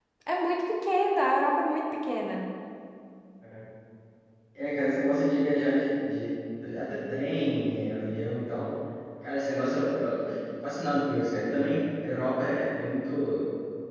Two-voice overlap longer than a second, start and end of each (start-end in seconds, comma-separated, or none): none